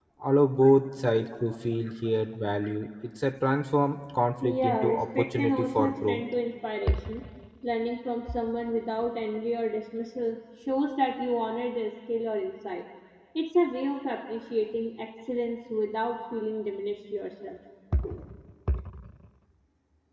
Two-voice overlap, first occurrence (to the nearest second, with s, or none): 4 s